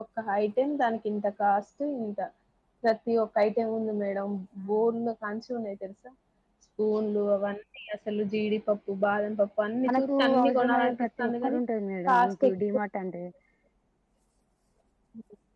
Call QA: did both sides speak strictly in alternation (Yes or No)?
No